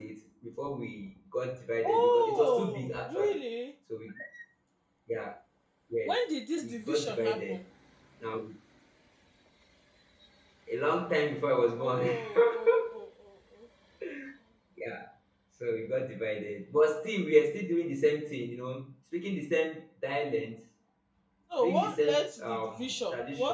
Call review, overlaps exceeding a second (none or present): present